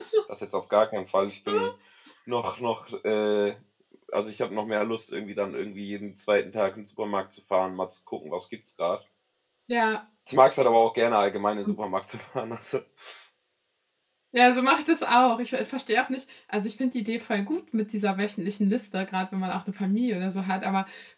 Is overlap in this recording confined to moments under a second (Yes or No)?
Yes